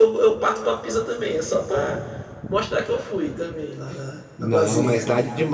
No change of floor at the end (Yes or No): No